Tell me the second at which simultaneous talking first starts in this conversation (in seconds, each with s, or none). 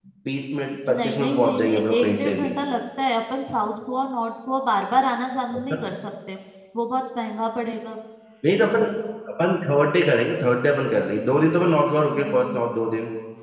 1.0 s